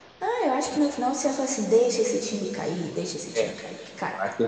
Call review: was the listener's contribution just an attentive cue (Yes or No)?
No